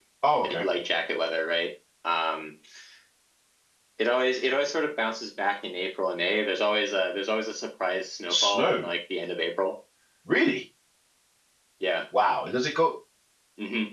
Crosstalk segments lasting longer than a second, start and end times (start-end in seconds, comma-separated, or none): none